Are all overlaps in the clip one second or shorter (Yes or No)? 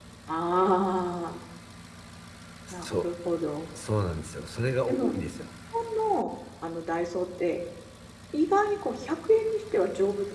Yes